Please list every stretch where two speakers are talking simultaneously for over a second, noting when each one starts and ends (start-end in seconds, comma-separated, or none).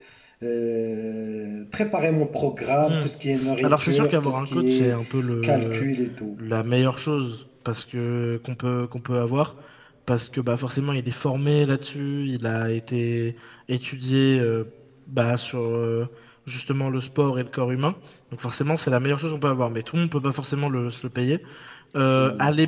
3.6-5.0